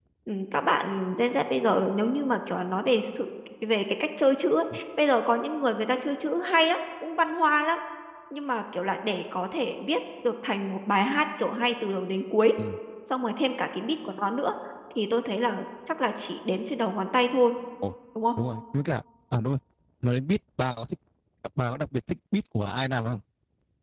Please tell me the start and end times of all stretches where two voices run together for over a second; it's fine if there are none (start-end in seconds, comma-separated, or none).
none